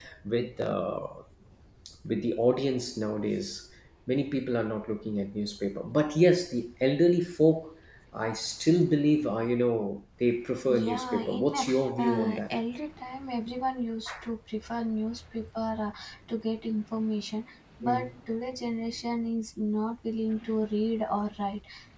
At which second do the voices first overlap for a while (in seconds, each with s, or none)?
10.7 s